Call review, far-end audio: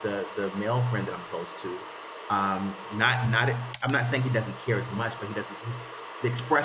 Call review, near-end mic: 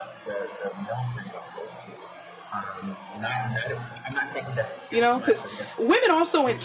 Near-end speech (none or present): present